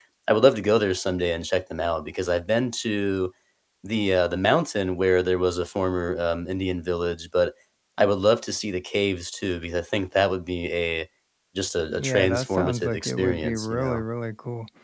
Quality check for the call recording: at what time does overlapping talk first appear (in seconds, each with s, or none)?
12.0 s